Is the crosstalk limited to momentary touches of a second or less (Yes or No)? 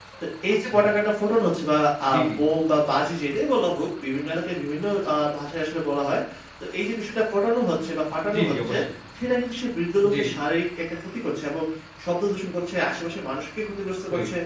Yes